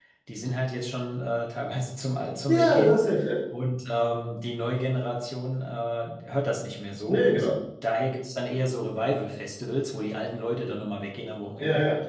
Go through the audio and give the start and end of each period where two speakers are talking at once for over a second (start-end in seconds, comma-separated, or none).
none